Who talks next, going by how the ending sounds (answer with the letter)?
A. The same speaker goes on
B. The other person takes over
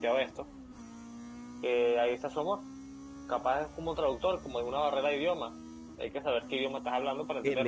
B